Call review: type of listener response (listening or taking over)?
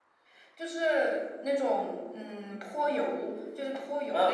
taking over